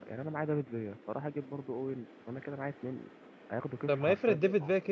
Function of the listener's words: taking over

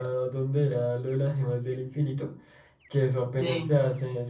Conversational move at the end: listening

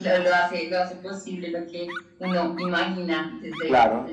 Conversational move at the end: taking over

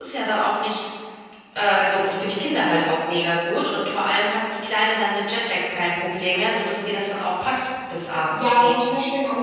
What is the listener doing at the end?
taking over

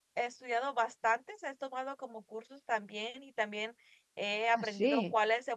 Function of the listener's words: listening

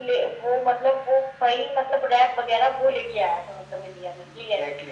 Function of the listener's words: taking over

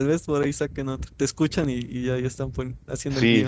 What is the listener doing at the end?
taking over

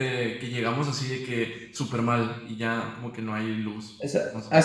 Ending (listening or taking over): taking over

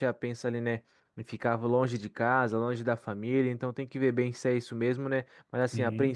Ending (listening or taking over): listening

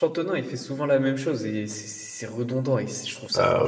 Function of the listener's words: taking over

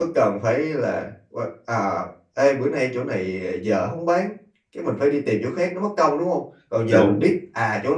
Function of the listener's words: listening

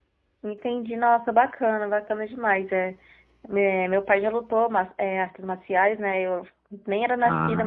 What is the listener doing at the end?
listening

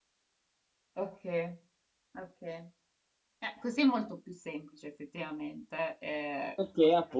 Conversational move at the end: taking over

